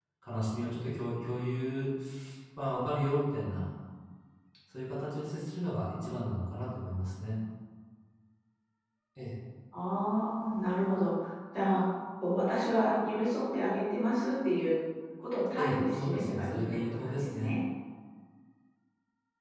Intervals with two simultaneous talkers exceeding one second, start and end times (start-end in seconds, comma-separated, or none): 15.6-17.5